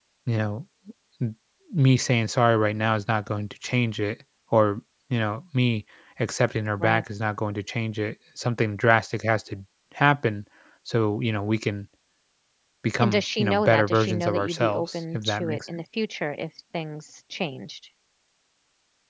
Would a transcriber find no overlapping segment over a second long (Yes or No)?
No